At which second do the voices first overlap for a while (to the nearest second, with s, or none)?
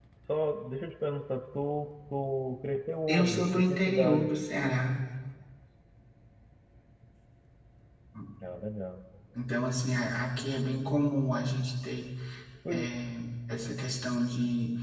3 s